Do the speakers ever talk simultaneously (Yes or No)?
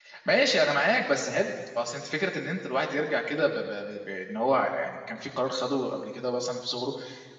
No